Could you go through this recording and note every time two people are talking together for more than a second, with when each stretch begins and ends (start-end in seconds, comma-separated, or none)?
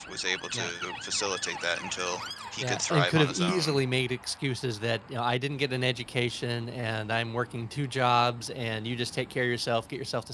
2.6-3.8